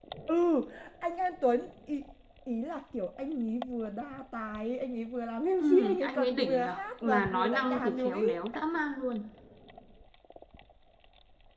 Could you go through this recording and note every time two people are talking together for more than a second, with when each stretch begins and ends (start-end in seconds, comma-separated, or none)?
5.6-8.2